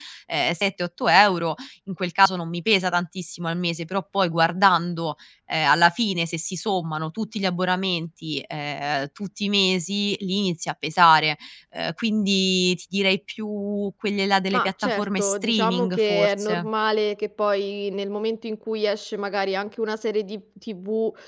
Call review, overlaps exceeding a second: present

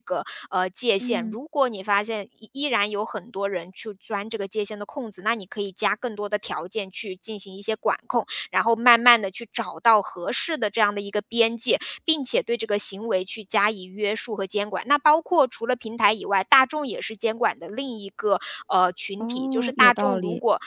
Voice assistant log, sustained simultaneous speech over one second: present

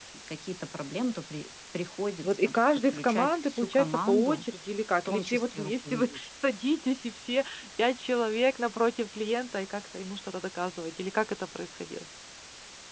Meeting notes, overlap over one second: present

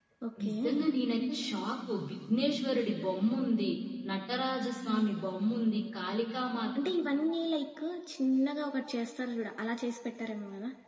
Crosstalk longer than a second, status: none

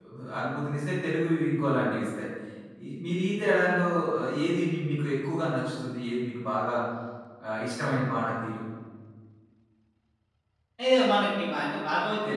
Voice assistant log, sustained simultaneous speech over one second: none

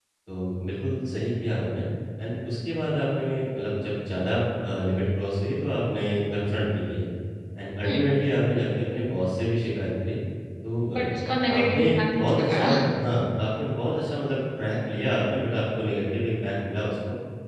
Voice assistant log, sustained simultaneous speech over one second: present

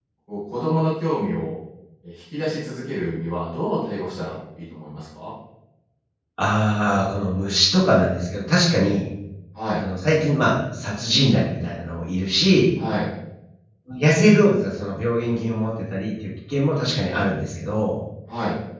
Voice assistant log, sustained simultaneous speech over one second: none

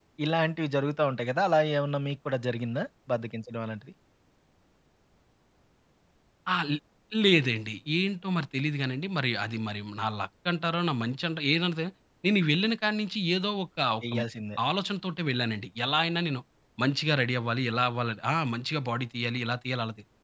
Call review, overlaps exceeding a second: none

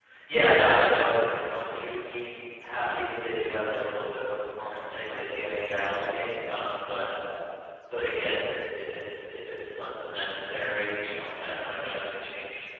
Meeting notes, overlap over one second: present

